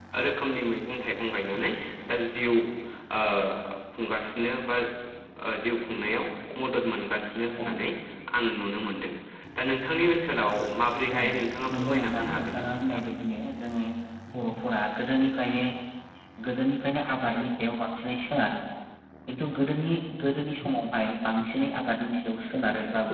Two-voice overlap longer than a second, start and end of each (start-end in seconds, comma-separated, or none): 11.7-13.0